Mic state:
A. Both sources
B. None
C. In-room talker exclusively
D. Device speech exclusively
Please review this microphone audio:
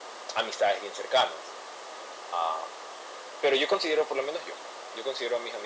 D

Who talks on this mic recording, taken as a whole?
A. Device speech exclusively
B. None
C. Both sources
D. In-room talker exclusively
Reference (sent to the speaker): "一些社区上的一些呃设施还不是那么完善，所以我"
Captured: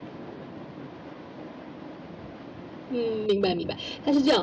D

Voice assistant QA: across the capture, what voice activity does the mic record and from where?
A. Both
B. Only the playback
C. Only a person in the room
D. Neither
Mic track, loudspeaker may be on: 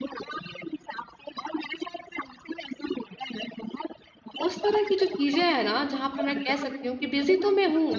A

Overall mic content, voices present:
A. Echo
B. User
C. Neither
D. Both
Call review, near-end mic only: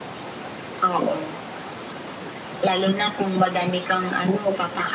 A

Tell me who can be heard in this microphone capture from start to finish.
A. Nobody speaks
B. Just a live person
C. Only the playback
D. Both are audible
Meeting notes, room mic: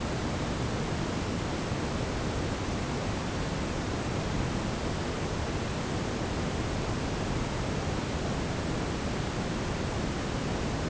A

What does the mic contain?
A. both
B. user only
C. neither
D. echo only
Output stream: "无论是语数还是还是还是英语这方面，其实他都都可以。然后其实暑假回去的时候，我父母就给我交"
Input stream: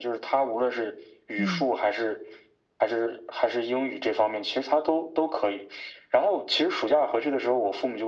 A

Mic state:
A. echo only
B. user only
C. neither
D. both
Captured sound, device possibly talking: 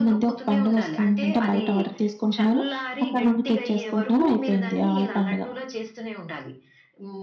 D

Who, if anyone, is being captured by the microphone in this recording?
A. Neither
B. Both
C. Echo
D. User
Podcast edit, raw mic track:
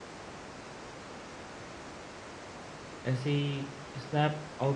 D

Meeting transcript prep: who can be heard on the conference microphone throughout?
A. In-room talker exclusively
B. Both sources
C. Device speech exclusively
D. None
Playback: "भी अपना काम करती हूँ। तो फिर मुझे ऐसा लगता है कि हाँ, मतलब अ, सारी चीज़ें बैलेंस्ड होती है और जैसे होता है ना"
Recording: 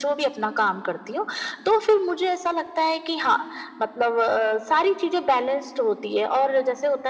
C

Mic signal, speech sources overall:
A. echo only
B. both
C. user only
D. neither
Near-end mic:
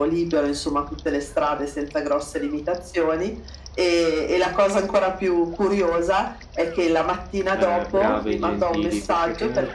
B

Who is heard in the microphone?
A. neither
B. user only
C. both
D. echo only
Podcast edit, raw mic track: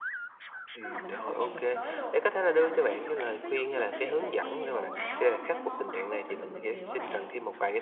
C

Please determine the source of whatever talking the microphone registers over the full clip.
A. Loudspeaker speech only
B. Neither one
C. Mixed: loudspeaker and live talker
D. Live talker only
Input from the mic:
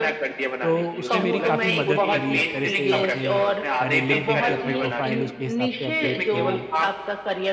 C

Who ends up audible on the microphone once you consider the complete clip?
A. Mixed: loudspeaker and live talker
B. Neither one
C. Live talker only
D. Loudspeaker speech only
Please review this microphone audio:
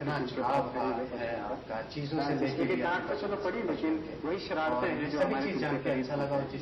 A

